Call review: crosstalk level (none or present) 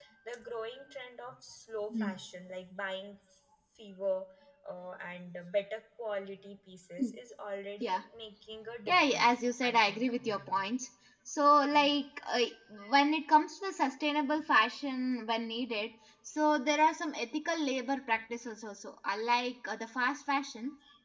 present